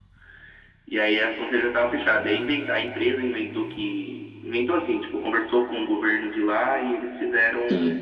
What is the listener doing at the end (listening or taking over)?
listening